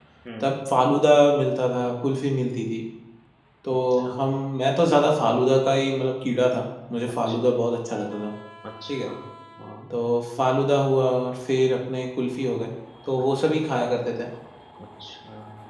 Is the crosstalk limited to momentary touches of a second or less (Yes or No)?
Yes